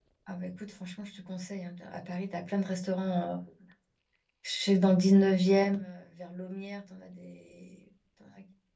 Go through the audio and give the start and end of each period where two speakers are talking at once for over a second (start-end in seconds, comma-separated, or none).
none